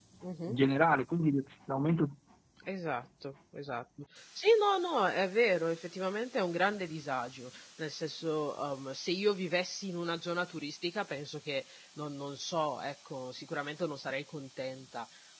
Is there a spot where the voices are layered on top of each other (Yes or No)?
No